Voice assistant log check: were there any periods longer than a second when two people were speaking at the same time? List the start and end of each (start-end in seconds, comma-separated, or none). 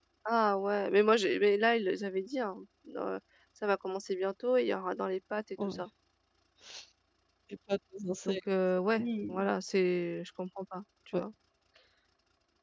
none